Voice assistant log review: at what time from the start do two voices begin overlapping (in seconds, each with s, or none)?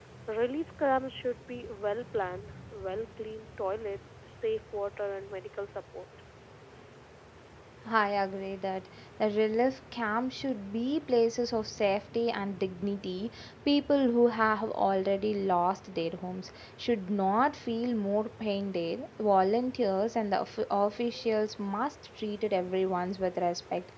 none